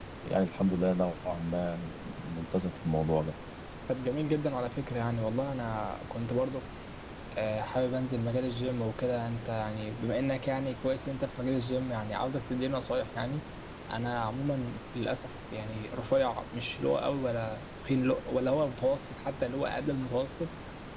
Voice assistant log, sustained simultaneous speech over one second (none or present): none